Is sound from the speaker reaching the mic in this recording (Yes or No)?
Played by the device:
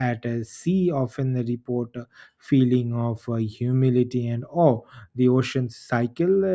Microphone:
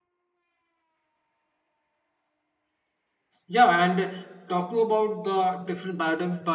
No